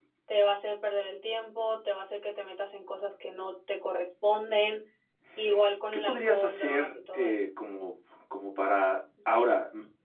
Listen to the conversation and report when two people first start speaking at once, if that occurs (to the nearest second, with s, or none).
6 s